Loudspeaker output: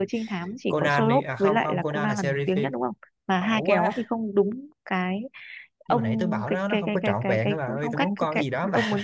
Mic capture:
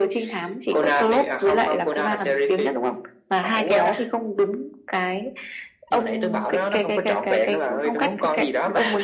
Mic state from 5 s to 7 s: echo only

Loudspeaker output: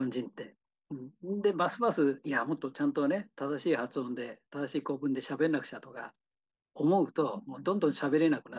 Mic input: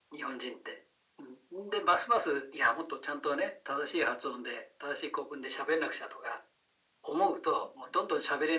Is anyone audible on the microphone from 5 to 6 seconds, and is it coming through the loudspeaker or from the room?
echo only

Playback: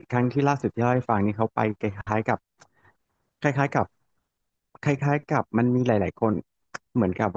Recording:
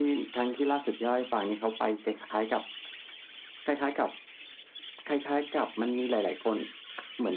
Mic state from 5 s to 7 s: echo only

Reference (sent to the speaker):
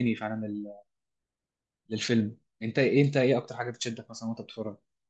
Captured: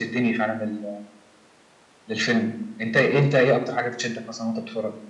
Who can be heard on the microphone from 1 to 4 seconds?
echo only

